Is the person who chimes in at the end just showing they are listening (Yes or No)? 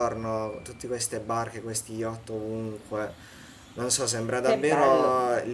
Yes